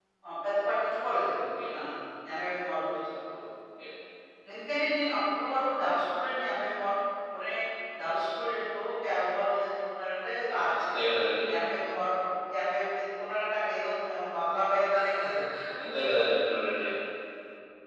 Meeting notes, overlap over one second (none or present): none